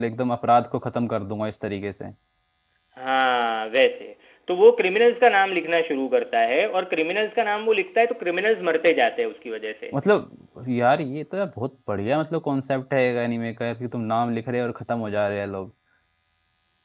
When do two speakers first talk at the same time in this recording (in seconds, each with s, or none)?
none